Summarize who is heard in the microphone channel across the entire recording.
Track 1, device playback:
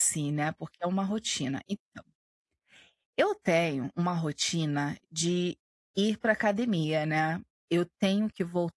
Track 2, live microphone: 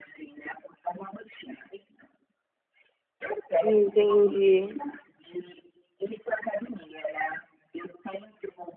both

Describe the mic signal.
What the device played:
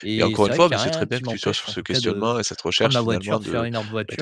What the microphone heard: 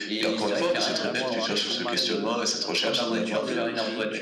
both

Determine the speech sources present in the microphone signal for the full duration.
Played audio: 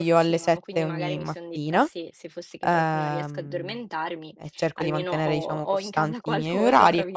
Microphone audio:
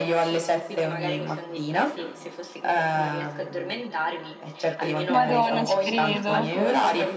both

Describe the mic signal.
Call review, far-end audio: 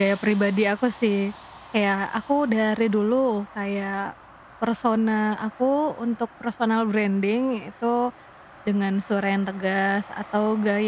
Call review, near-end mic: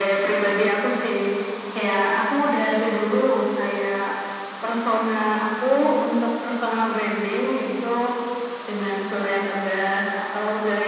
echo only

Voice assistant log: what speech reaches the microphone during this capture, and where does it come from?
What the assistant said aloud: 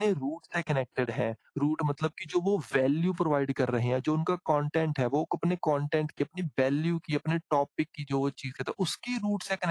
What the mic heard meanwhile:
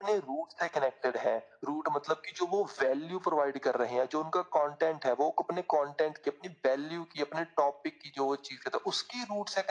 echo only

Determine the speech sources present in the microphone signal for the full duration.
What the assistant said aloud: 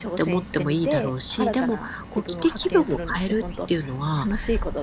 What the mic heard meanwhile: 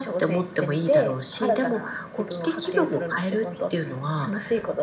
echo only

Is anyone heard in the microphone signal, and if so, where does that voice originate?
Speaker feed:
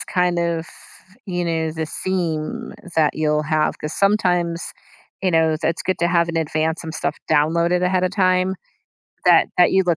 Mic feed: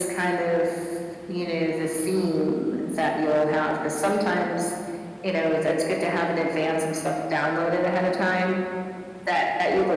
echo only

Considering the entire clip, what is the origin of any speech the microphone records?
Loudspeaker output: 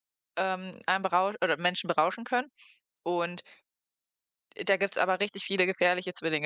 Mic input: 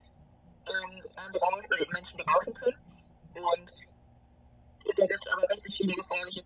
echo only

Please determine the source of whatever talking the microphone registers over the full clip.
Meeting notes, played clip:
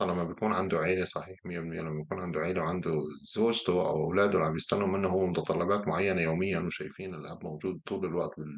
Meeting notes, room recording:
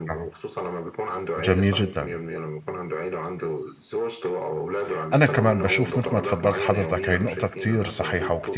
both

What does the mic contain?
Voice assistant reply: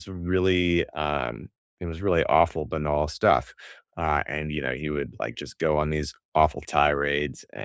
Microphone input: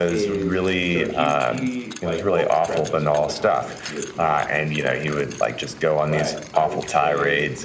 both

